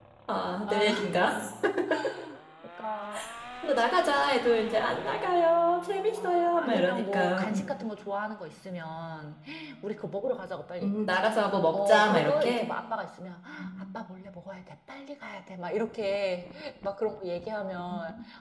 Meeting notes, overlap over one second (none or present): present